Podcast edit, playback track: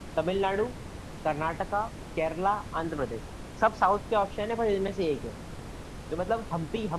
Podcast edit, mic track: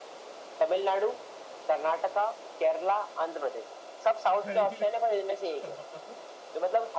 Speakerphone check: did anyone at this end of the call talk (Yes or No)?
Yes